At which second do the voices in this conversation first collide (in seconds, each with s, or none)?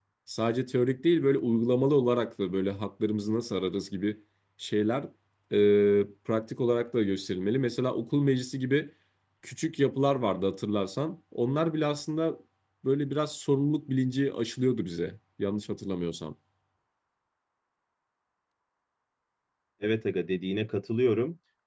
none